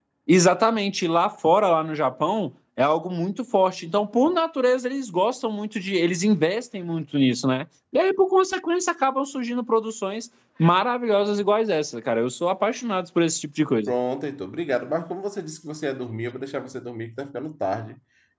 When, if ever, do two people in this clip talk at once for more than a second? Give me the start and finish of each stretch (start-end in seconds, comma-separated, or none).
none